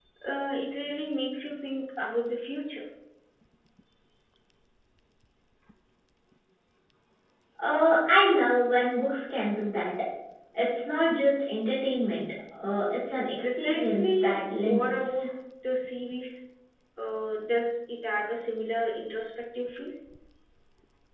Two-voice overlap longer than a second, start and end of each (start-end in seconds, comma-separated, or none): 13.4-15.2